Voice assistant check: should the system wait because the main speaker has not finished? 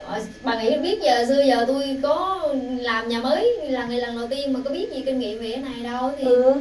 No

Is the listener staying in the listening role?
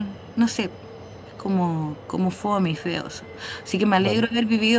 Yes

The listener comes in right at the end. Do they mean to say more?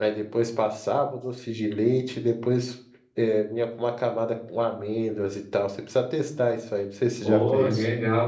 Yes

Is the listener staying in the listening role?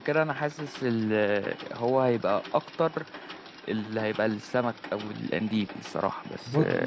No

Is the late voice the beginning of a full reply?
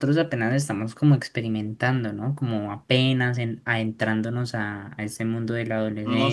Yes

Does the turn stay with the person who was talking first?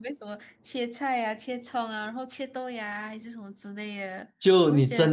No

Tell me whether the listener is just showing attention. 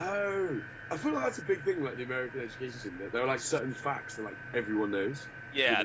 No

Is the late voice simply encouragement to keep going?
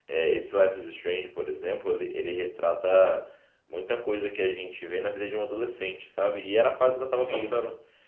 Yes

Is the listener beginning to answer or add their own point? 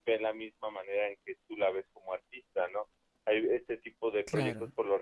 No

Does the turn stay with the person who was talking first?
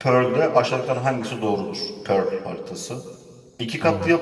Yes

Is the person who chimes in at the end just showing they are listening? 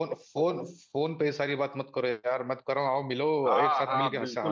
No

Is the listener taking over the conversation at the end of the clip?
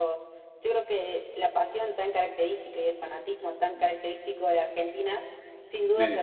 No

